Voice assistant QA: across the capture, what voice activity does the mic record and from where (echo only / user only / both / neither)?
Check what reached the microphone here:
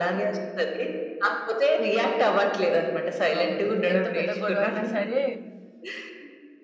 both